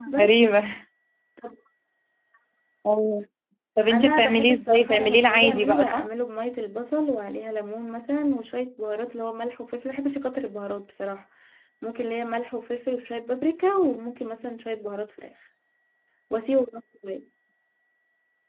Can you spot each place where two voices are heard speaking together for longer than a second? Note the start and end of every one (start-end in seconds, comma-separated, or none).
3.9-6.1